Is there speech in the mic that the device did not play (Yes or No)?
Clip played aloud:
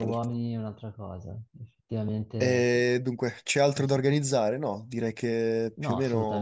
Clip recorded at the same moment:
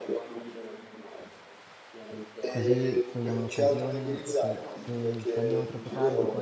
Yes